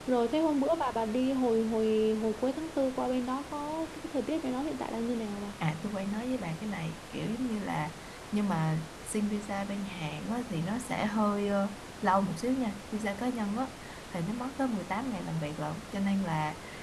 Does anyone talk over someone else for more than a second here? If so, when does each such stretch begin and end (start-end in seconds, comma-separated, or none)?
none